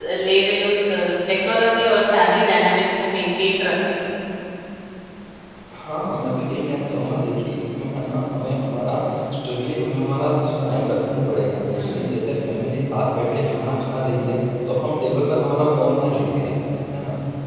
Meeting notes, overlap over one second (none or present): none